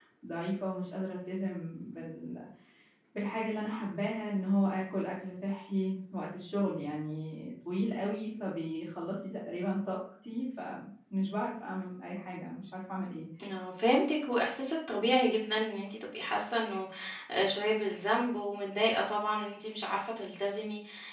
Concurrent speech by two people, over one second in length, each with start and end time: none

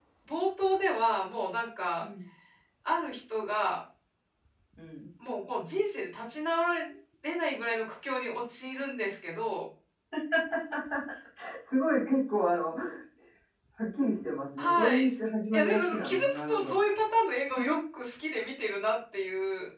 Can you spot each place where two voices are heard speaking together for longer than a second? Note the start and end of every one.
15.5-16.7

